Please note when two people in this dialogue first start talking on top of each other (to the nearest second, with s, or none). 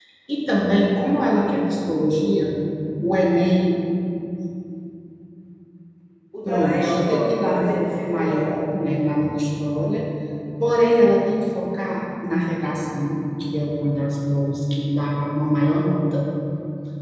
6 s